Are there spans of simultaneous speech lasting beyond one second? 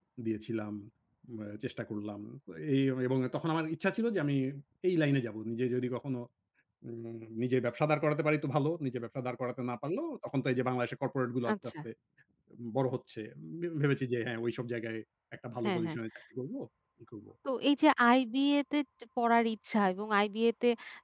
No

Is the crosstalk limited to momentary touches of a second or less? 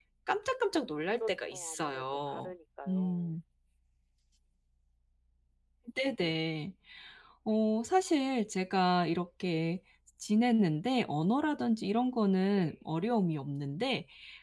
No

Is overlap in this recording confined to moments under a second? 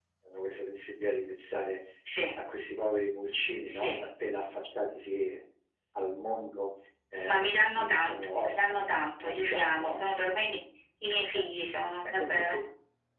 No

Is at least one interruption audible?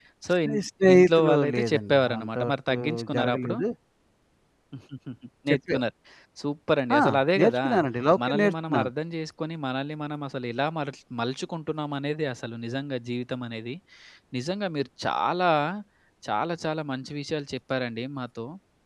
Yes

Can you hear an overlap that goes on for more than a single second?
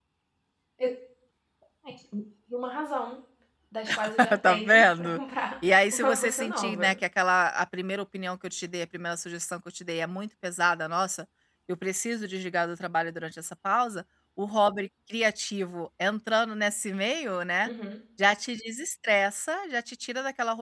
Yes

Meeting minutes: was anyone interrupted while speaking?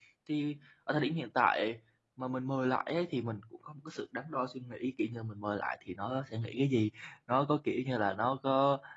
No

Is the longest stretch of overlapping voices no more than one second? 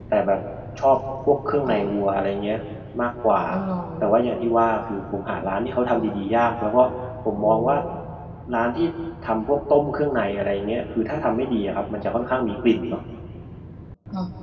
Yes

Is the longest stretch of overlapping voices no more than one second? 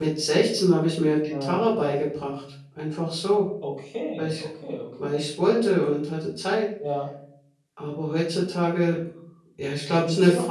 Yes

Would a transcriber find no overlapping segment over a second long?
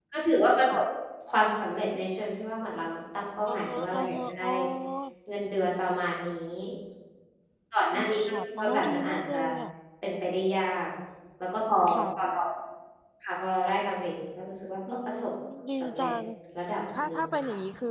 No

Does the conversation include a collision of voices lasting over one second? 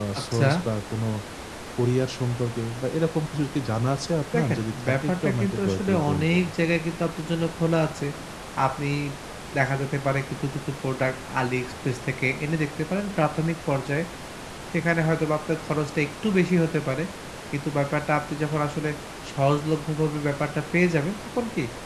Yes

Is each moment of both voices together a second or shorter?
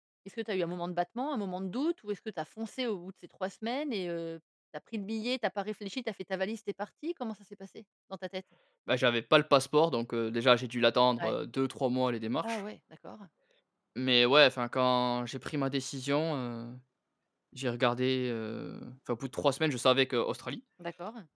Yes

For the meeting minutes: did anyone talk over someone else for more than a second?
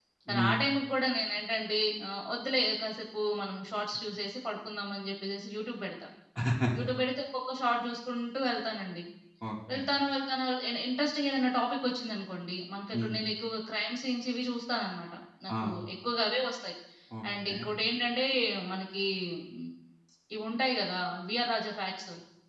No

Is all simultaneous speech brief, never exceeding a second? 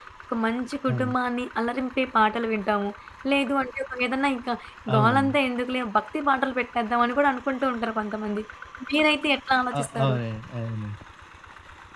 Yes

